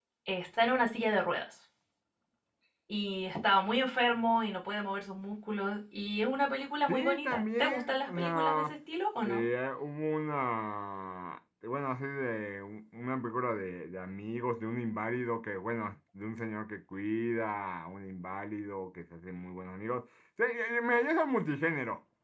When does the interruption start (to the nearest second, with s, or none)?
7 s